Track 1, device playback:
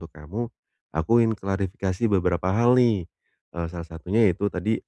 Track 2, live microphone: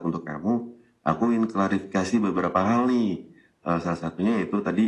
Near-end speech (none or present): none